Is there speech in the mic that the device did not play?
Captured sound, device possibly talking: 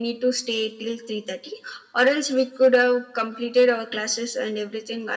No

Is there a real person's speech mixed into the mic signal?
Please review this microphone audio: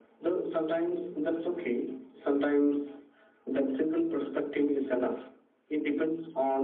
No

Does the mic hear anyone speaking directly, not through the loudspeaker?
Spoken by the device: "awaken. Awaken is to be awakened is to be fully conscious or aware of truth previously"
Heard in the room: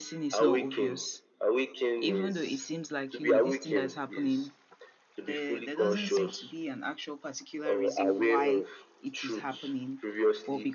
Yes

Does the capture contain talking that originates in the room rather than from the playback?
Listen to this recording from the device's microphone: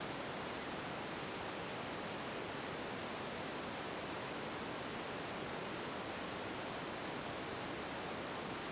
No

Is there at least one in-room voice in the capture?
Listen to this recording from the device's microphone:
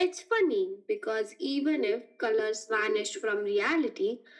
No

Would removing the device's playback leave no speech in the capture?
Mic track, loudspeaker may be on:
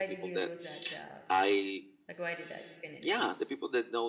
No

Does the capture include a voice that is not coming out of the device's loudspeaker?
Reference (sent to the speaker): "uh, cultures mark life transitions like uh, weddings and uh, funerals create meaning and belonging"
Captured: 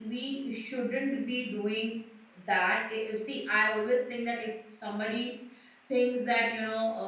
Yes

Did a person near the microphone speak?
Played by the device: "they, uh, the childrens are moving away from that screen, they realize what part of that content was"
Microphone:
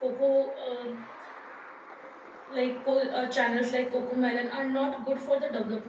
Yes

